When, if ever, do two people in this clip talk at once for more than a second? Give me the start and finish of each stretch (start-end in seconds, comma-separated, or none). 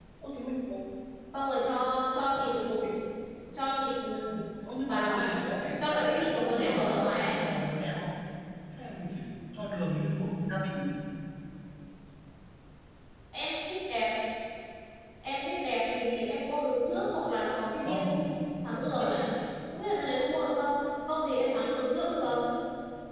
5.8-7.3